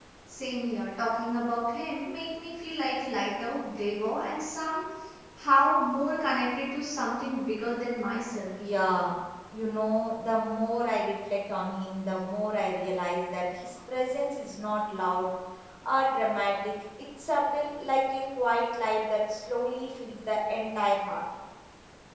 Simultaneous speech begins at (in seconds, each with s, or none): none